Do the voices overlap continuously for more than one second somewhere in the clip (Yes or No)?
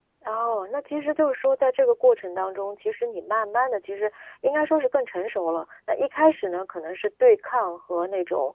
No